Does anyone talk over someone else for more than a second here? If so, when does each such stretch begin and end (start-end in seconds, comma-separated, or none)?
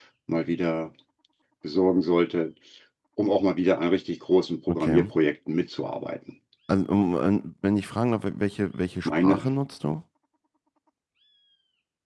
none